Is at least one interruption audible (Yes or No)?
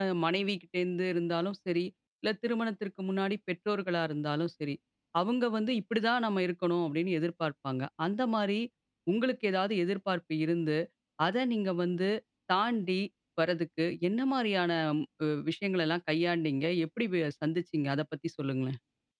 No